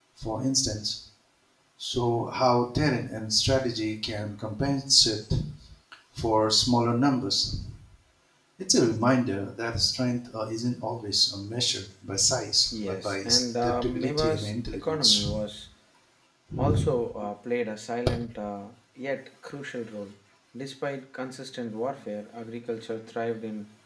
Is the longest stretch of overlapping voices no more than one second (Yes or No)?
No